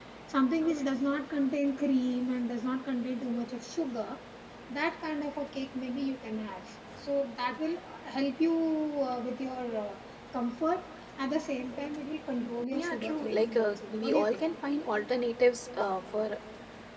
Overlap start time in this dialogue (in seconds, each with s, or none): 12.7 s